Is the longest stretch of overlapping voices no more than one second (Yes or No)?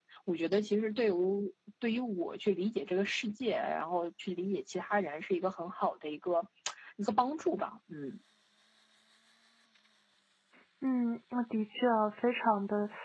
Yes